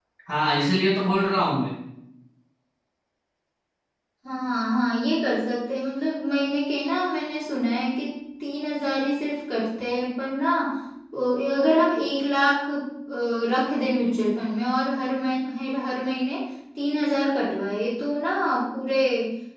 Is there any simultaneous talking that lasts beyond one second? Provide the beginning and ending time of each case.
none

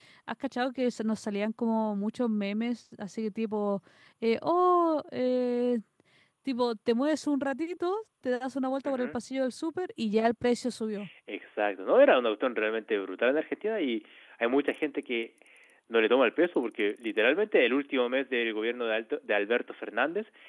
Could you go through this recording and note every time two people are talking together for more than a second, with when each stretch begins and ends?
none

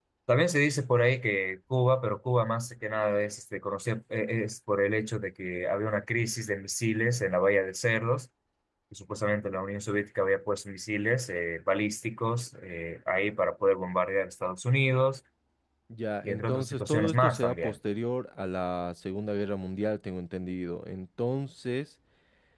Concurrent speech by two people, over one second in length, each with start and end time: 16.2-17.8

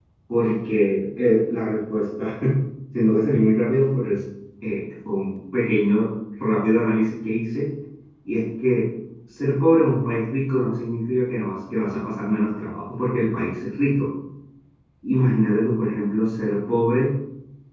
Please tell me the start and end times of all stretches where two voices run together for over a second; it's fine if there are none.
none

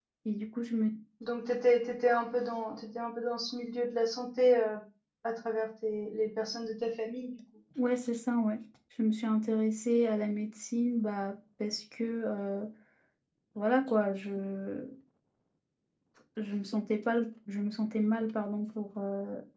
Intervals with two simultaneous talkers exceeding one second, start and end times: none

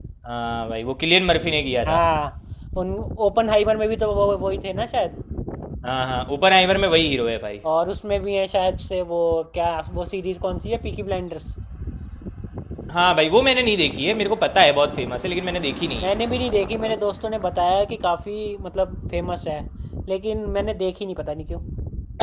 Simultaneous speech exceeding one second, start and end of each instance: none

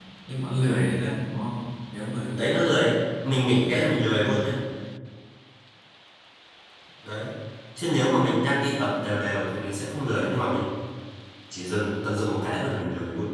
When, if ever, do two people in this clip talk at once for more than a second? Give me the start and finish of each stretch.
3.3-4.5

